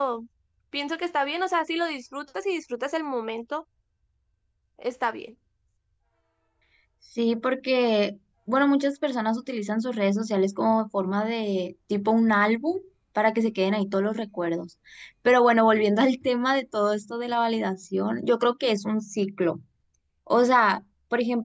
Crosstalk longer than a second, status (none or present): none